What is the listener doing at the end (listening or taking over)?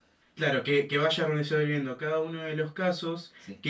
listening